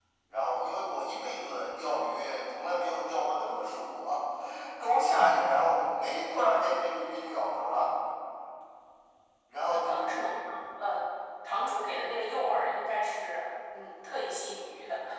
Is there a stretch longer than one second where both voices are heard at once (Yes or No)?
No